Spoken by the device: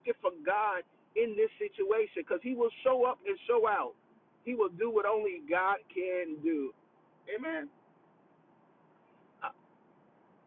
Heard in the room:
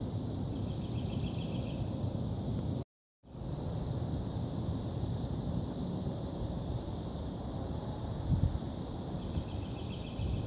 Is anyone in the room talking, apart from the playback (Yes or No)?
No